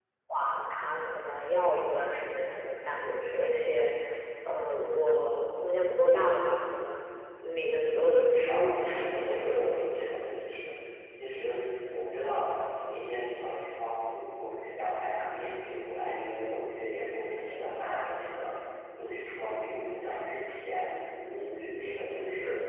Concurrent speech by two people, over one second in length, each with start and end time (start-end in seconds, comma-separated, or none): 8.4-9.8